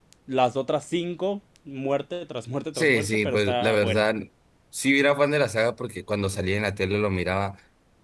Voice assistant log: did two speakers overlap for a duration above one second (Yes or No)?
Yes